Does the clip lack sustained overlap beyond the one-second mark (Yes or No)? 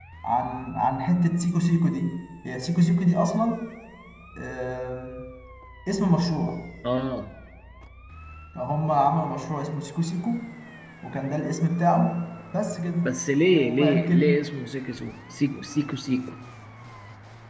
No